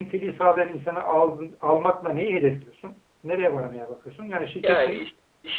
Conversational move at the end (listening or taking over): taking over